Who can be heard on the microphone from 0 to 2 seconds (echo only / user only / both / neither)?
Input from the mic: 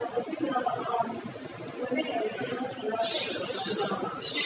echo only